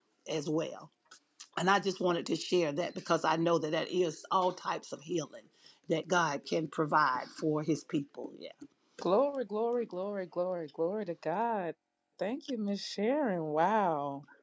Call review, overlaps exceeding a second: none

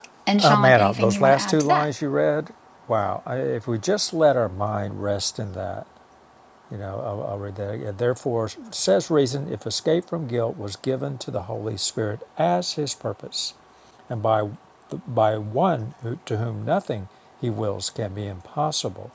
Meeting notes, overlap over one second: present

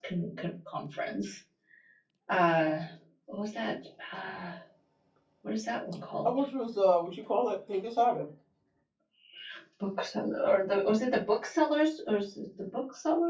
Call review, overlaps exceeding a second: none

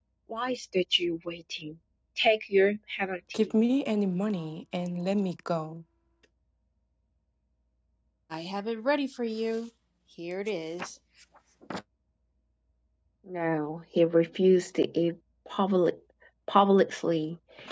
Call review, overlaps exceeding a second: none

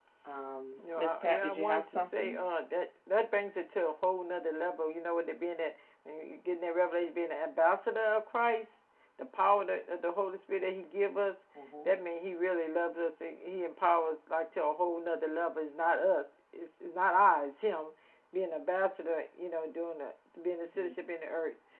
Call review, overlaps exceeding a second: present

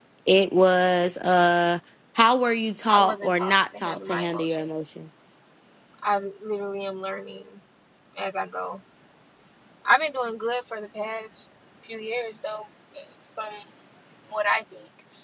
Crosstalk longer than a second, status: present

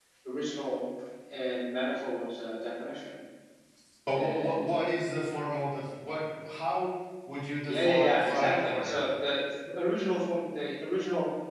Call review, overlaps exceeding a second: present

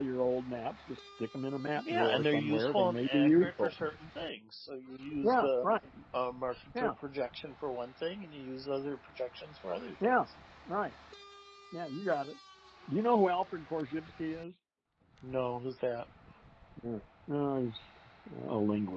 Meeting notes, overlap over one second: present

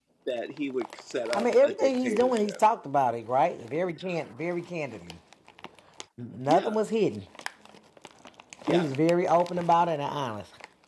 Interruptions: present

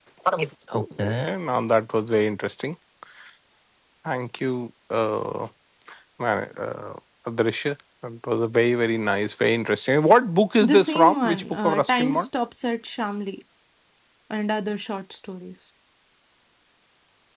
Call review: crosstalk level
present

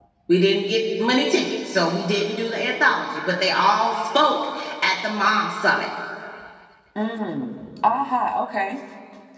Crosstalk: none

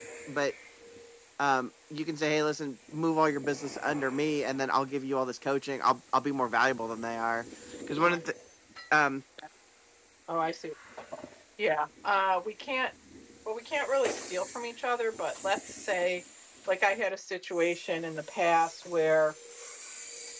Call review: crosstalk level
none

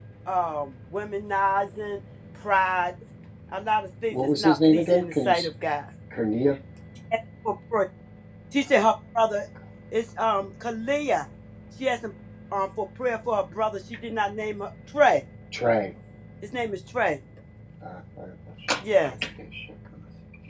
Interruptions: present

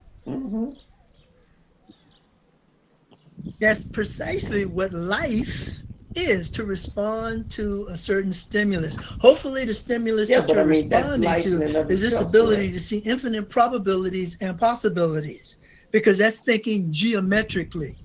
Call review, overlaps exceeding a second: present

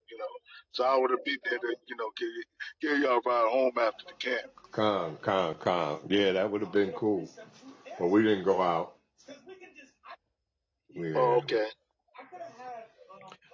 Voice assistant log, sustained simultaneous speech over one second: none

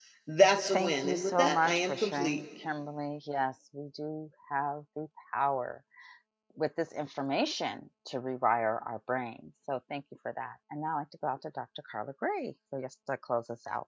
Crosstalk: present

